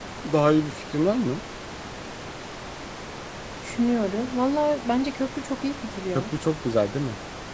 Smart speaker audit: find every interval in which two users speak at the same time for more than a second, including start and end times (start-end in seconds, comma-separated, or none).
none